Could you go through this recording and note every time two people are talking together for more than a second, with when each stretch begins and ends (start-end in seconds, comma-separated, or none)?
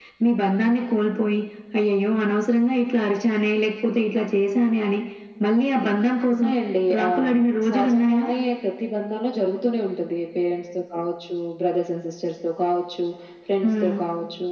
6.9-8.2